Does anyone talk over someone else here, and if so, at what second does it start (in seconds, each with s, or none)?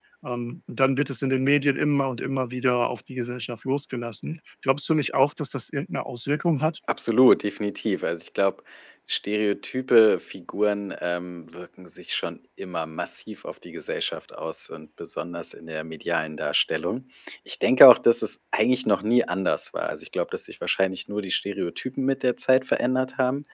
none